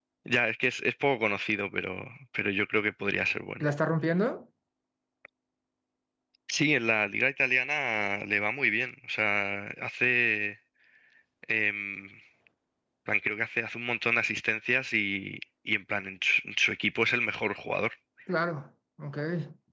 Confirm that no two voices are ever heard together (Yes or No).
Yes